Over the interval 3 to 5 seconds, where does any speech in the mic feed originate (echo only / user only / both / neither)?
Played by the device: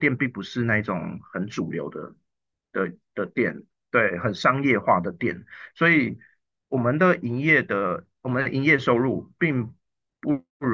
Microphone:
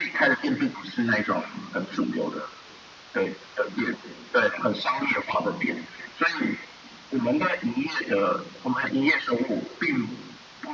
echo only